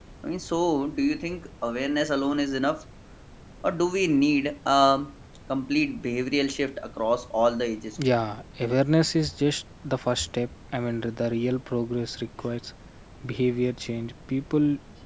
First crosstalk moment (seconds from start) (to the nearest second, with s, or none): none